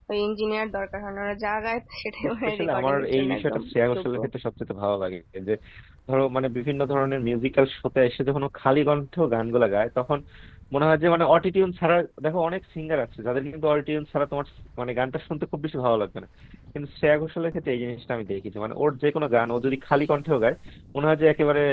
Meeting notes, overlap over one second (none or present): present